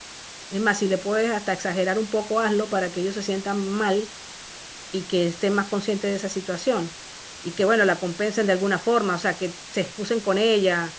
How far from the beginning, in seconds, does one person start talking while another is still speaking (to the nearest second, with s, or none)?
none